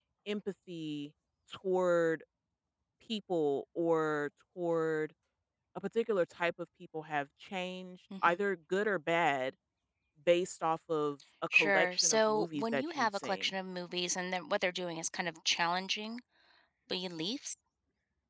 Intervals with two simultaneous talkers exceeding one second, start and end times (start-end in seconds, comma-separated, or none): 11.5-13.5